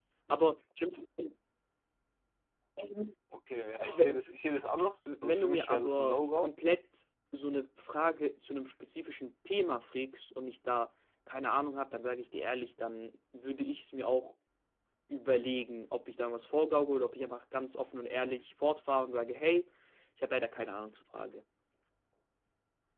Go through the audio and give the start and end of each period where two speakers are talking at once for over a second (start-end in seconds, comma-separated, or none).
5.2-6.5